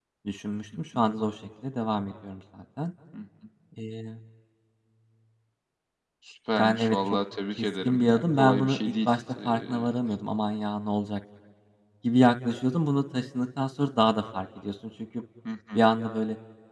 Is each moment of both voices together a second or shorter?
No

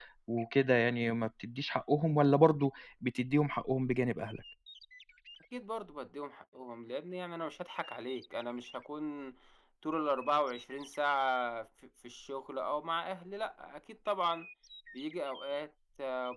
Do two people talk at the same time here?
No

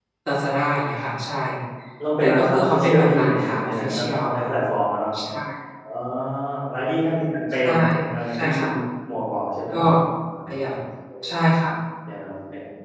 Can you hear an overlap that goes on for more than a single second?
Yes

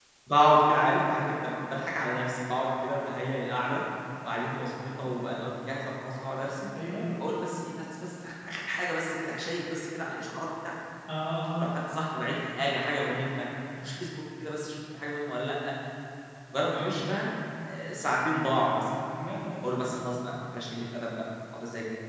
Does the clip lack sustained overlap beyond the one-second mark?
Yes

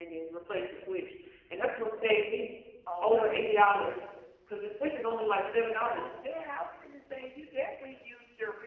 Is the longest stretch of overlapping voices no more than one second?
Yes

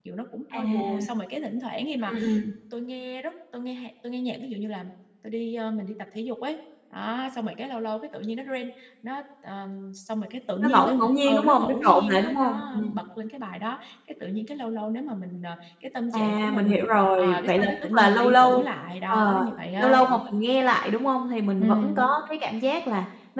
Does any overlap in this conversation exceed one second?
Yes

